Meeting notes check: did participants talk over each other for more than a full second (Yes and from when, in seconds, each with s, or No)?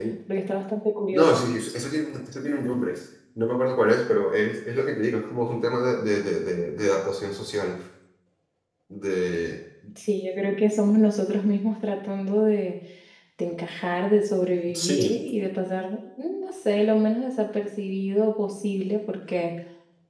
No